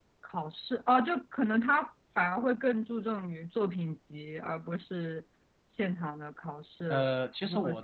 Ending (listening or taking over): taking over